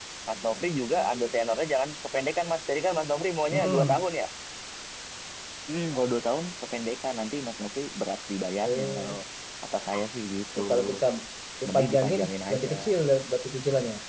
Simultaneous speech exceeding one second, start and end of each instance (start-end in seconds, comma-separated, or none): 11.6-12.9